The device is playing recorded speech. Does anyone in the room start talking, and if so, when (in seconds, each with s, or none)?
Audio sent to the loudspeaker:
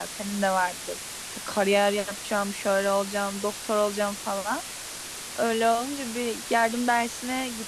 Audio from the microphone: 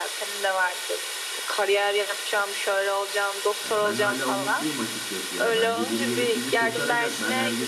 3.6 s